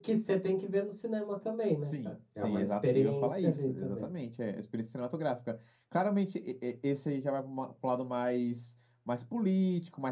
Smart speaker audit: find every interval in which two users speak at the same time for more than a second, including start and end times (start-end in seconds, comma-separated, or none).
1.8-4.1